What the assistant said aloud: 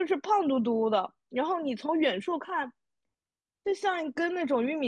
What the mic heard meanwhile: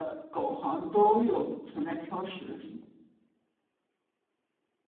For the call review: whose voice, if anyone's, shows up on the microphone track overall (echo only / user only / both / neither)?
user only